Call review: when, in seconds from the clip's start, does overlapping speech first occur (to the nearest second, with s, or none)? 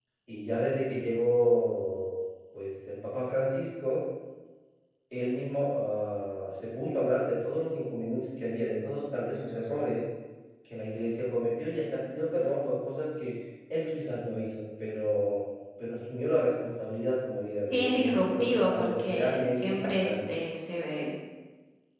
18 s